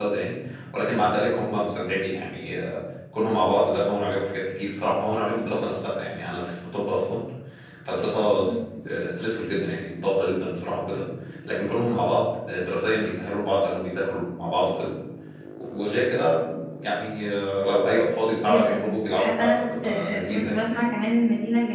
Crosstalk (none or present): present